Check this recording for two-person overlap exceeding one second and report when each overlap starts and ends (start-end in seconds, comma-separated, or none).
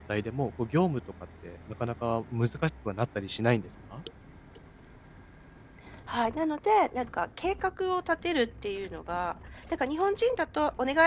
none